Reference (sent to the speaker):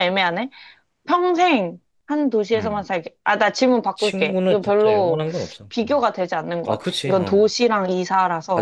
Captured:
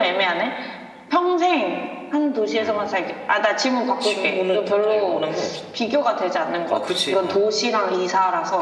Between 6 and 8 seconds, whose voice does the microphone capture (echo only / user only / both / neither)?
echo only